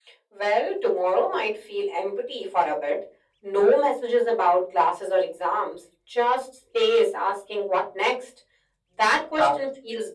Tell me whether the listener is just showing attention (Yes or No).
Yes